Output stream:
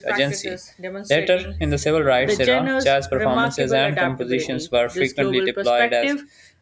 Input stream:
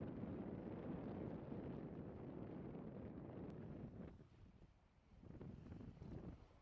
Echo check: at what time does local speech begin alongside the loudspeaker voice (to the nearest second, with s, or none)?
none